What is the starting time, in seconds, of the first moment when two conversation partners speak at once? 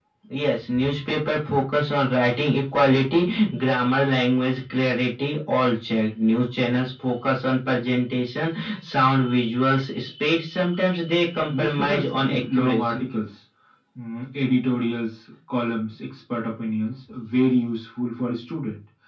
11 s

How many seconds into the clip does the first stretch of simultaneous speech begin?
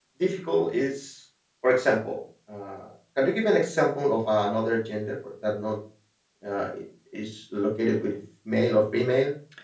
none

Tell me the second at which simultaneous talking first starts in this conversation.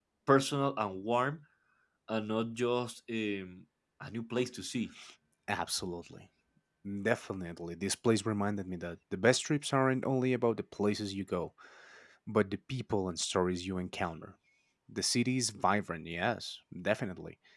none

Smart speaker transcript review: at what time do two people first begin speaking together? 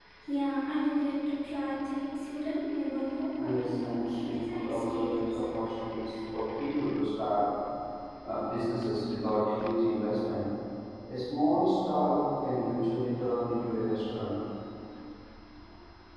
3 s

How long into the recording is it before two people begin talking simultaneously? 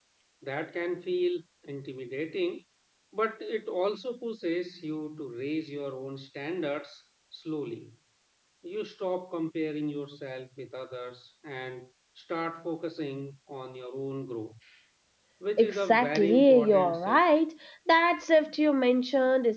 16 s

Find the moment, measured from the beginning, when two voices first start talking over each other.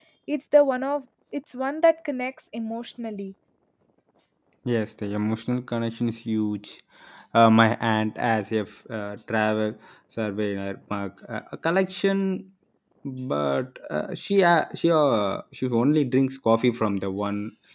none

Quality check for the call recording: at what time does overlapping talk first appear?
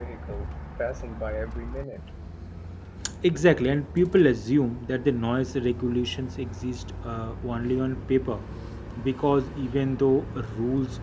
none

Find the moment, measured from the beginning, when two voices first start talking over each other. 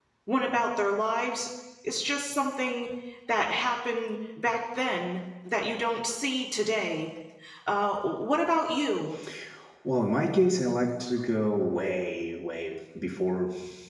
none

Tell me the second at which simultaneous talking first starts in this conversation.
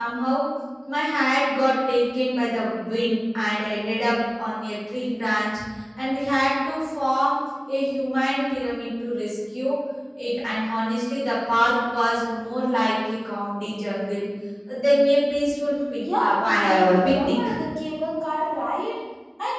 16 s

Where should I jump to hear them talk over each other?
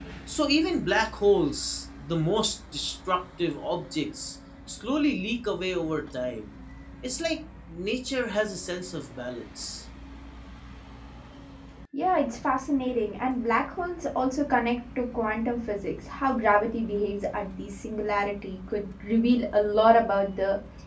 none

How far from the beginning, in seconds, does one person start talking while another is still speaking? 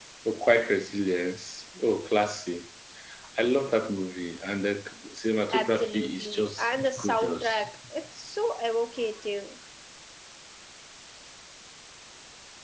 6 s

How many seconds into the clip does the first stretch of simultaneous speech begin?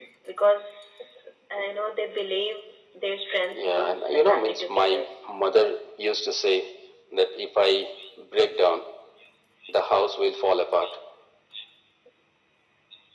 4 s

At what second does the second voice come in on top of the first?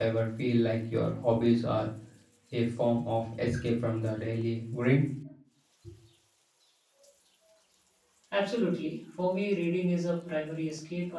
none

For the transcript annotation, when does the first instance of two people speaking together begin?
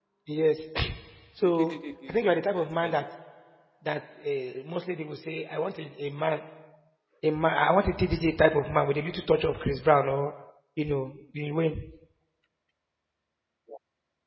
1 s

